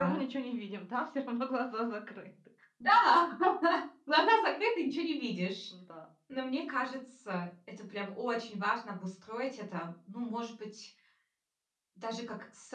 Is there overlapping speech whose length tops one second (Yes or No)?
No